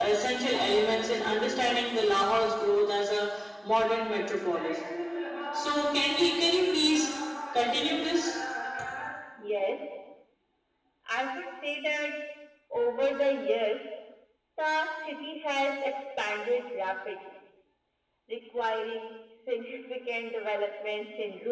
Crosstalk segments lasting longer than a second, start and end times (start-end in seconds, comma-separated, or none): none